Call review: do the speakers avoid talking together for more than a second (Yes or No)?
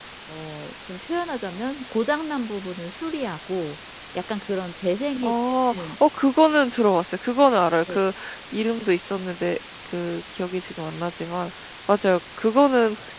Yes